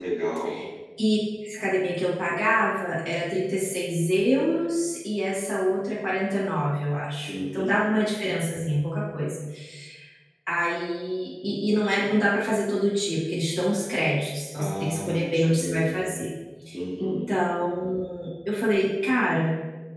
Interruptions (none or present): present